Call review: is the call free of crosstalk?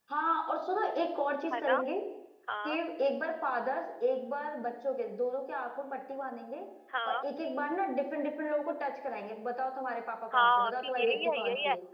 No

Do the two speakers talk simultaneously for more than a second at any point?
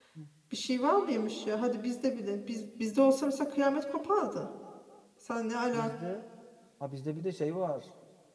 No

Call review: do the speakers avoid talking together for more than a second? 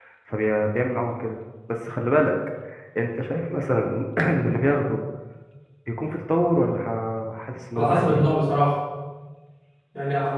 Yes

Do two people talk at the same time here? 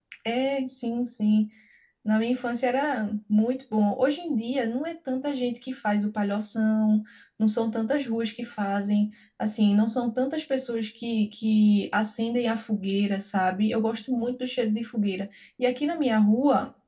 No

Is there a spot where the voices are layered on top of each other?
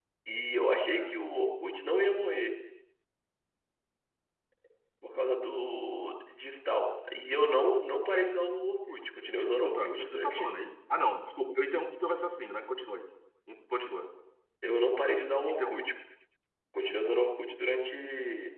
Yes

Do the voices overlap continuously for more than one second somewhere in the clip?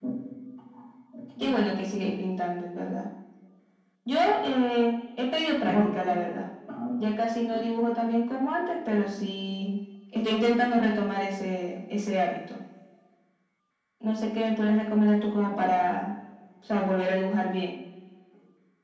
No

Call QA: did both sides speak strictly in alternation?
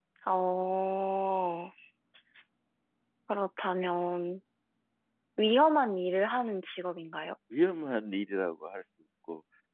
Yes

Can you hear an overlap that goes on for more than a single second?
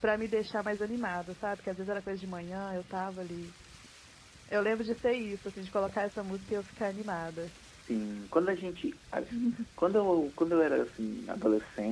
No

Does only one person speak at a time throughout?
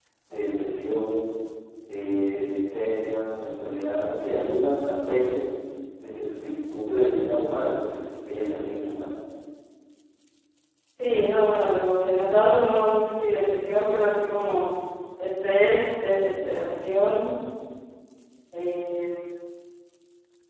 Yes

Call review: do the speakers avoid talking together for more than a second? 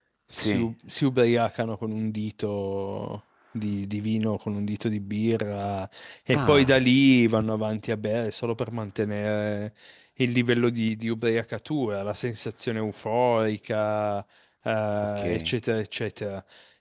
Yes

